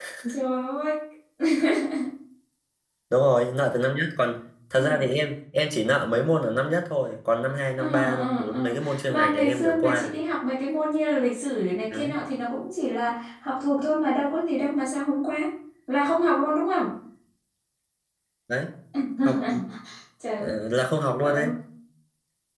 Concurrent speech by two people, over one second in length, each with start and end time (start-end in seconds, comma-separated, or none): 7.8-10.2